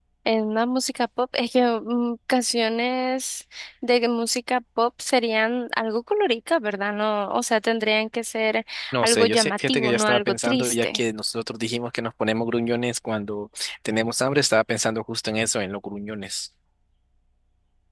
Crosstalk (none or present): present